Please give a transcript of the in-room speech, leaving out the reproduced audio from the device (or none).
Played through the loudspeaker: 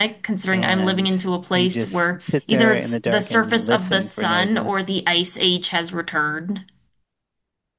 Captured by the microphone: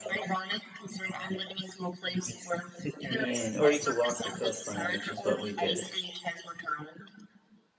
and or you could walk the coastline, which is what we did.